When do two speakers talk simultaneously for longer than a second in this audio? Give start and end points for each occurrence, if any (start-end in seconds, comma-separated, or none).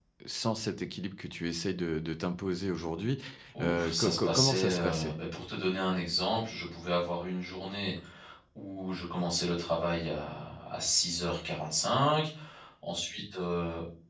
3.6-5.1